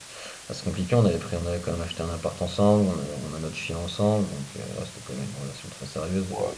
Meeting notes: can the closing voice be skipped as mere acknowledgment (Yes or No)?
No